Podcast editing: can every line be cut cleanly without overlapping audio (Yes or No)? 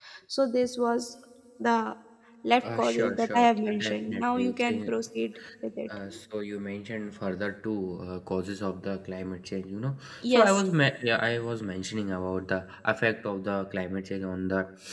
No